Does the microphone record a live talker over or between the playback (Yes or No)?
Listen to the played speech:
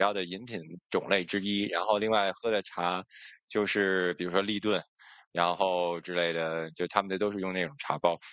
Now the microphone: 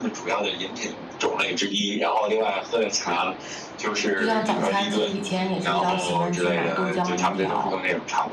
Yes